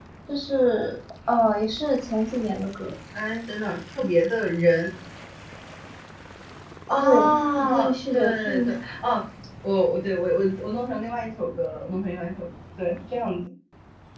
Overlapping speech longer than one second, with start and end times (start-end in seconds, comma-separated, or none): 7.0-8.7